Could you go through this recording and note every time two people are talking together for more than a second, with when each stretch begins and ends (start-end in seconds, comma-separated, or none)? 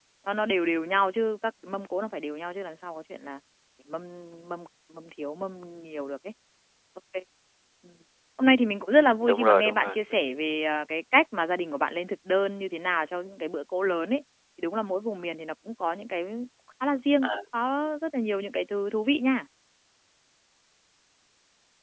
9.2-10.6